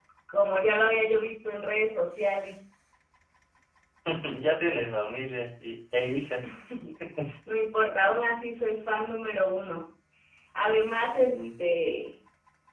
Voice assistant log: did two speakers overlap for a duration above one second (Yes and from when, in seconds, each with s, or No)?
No